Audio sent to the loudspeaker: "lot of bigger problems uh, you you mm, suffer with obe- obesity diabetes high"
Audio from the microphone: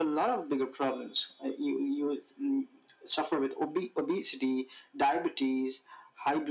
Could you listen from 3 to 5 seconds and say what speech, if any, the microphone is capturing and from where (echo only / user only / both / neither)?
echo only